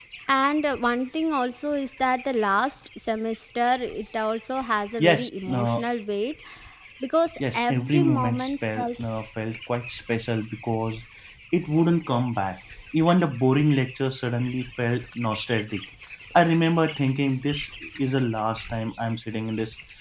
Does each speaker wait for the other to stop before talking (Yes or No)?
No